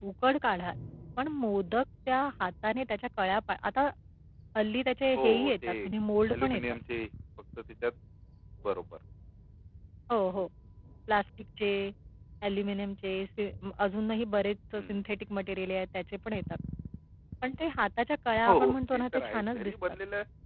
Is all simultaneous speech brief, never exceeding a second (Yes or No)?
No